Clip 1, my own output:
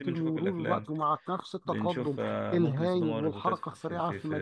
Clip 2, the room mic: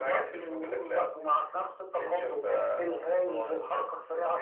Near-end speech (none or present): none